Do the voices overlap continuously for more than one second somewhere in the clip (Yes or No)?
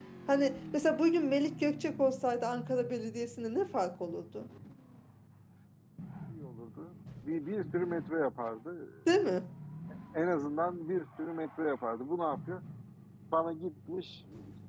No